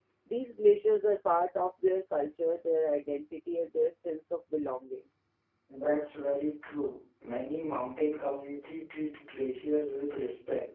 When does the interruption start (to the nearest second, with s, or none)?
none